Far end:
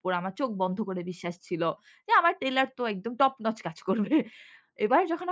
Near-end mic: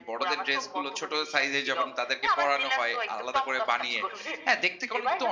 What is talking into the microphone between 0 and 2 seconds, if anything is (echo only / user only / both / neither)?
both